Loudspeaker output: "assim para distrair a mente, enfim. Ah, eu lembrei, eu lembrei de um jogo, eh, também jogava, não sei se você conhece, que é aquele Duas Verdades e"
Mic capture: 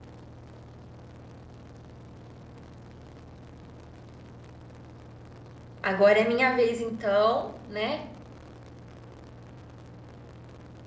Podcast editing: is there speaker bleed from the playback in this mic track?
No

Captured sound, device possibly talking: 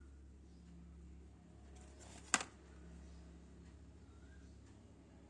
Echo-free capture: Yes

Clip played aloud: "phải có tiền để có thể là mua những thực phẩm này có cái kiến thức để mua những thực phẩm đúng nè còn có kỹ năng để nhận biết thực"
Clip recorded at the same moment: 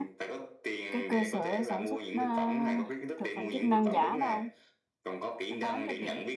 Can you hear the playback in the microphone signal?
Yes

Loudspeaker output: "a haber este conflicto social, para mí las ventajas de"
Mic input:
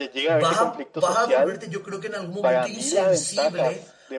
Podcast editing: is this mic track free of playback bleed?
No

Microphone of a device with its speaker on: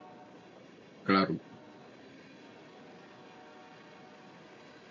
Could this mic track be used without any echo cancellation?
Yes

